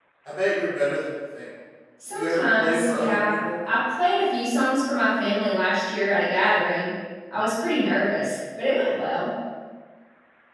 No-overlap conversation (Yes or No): No